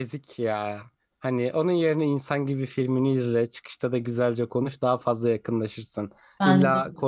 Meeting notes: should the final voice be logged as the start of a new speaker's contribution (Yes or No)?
No